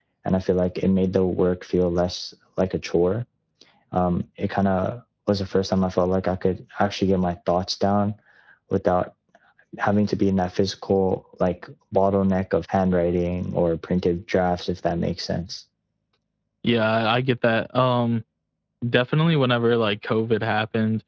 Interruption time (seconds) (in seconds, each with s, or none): none